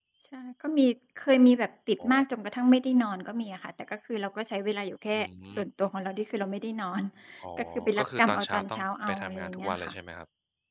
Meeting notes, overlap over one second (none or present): present